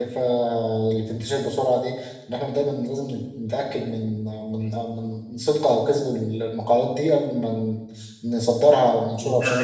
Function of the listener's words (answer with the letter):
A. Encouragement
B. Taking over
B